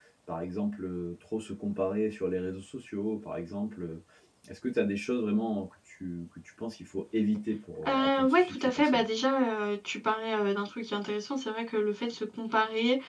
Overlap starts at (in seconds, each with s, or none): 7.8 s